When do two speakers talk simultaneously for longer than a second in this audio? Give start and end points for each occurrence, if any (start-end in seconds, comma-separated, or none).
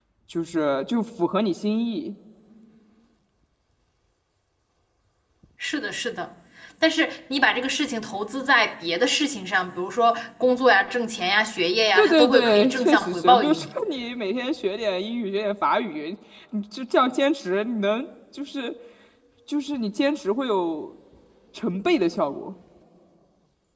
12.0-13.6